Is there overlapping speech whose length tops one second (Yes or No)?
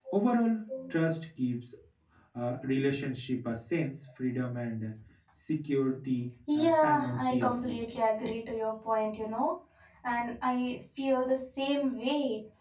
Yes